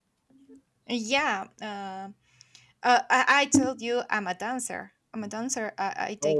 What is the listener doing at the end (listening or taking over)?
listening